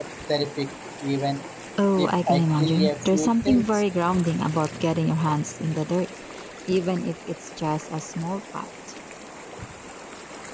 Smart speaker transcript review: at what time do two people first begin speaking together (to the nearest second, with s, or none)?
2 s